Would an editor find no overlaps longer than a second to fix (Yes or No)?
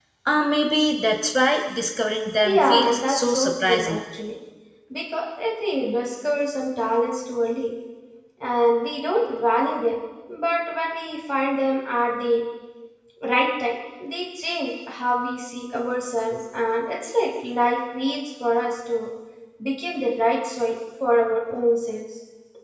No